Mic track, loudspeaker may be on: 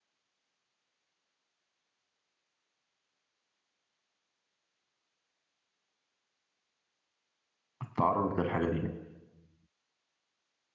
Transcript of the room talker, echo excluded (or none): التعرض للحاجة دي